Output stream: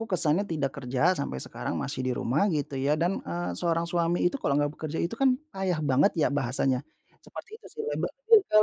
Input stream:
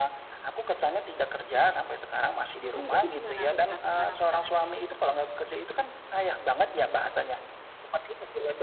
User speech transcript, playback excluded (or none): mhm, itu gimana tuh, Kak, tekanan-tekanannya?